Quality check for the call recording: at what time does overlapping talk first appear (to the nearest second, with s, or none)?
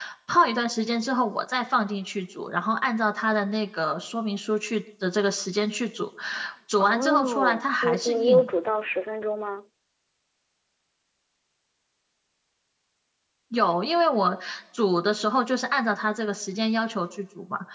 7 s